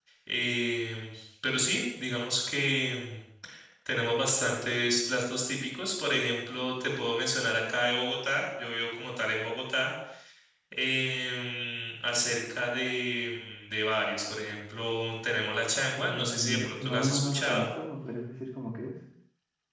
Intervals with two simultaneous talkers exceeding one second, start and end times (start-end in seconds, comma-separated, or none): 16.0-17.6